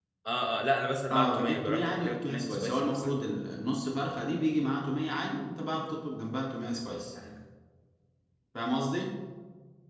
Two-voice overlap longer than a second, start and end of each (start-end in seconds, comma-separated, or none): 1.1-3.2